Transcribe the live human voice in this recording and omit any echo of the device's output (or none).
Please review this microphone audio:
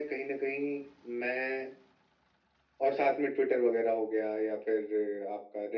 none